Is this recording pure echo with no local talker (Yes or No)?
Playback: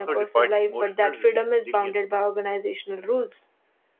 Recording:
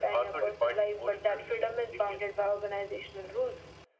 Yes